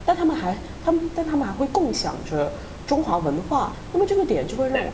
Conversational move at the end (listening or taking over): listening